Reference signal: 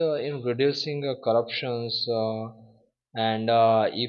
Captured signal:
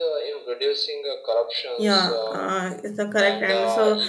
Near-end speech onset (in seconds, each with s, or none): 1.8 s